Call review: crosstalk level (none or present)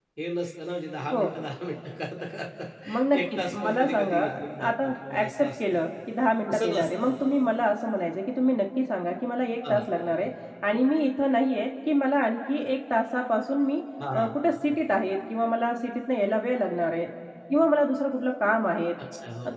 present